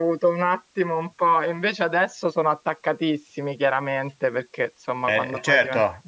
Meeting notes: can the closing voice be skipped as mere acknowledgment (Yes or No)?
No